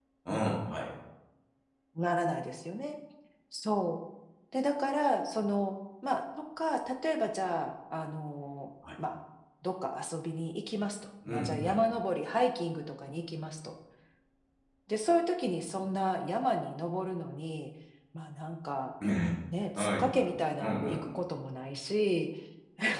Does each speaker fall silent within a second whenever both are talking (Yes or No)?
No